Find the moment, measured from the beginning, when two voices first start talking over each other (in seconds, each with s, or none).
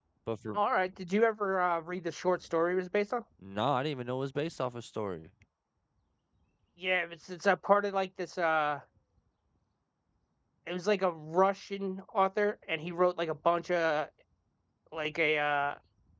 none